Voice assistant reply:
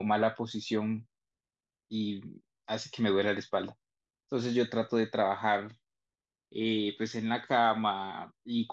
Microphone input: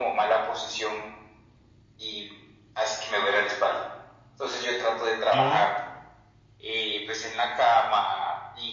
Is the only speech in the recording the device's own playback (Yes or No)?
No